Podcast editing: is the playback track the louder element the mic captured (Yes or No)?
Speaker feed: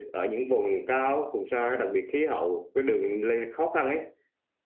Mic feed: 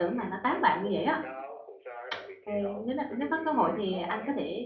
No